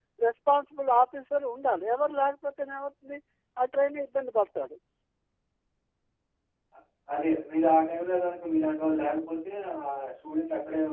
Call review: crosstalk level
none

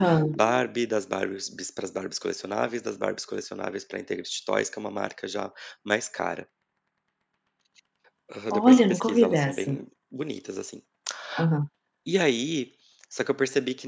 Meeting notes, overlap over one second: present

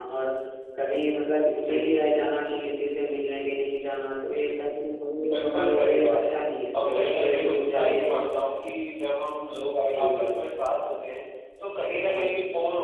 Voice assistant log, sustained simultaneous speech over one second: present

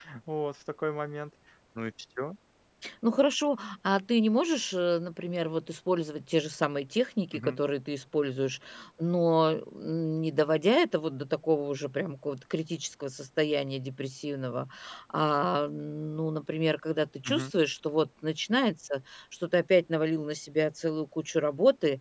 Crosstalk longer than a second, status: none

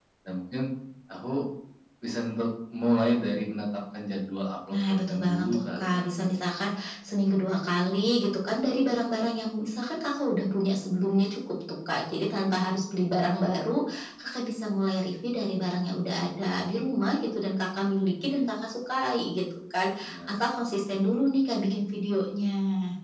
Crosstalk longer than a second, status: present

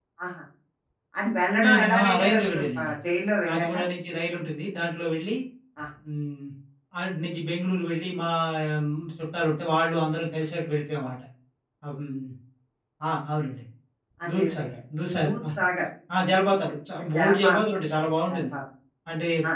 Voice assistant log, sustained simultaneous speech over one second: present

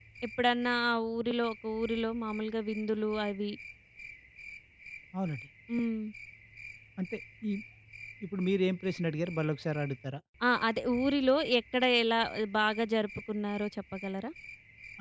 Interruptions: none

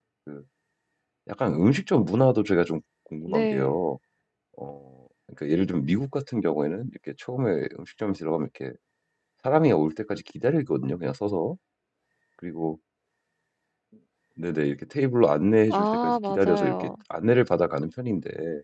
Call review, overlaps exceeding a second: present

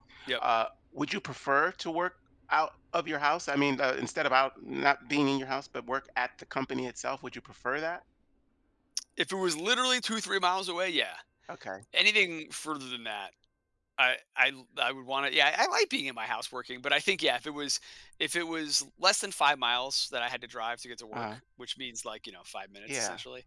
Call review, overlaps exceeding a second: none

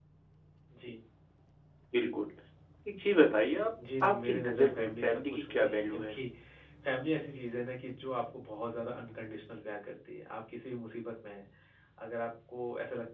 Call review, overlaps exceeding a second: present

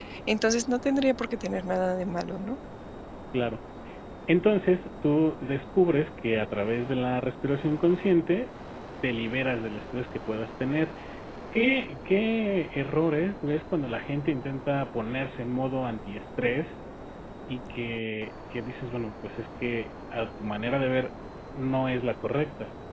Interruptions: none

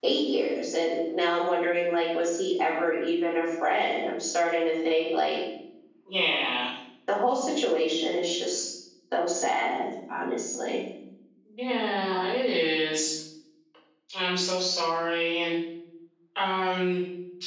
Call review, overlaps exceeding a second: none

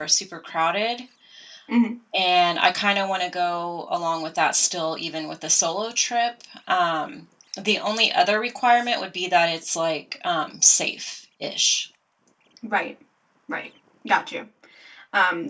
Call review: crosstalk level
none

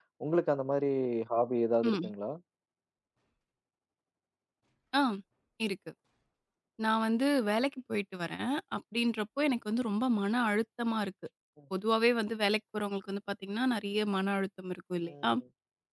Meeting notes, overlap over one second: none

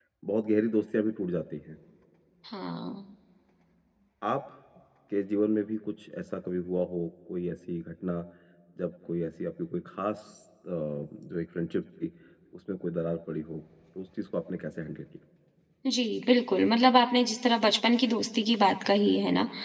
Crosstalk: none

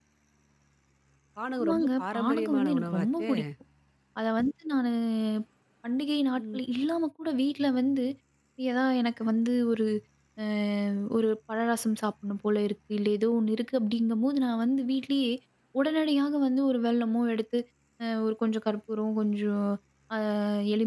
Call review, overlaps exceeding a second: present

